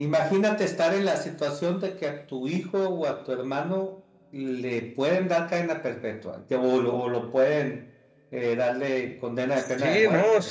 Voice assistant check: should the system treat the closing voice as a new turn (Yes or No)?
Yes